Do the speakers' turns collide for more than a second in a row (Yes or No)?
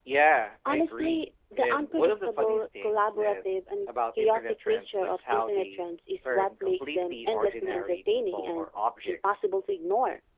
Yes